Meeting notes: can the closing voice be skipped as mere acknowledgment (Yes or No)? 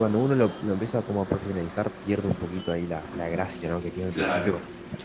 Yes